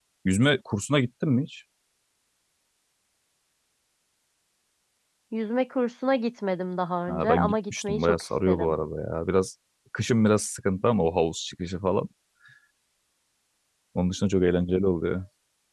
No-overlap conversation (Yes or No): No